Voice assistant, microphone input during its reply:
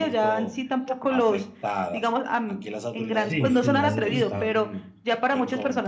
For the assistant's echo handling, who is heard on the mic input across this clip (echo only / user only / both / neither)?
both